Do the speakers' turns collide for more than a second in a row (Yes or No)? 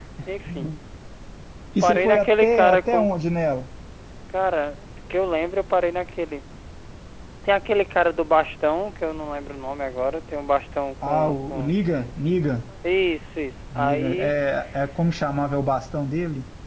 Yes